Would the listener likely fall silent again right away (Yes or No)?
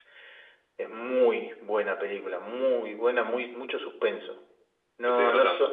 Yes